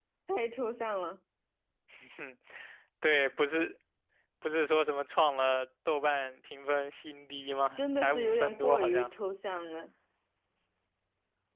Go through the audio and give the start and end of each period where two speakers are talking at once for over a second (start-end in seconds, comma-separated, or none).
7.8-9.1